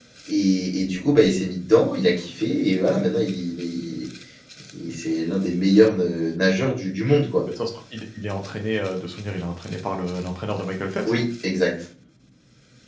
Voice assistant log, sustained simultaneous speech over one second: none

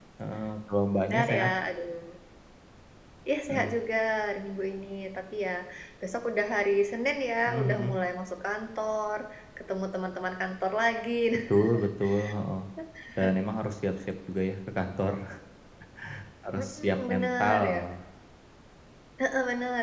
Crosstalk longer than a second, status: present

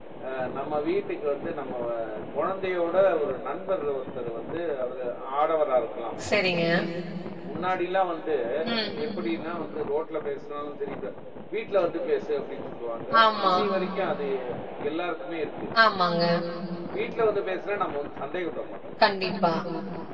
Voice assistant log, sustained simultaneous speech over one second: none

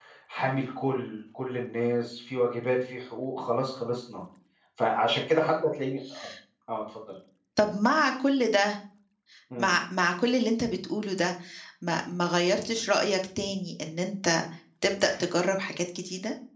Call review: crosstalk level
none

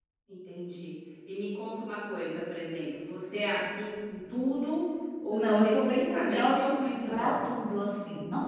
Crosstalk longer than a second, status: present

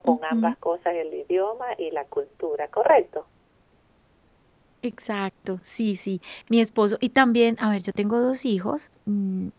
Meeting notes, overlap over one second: none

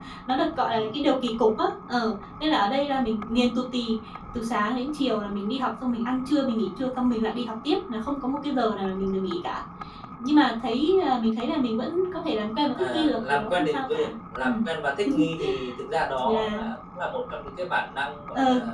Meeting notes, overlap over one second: present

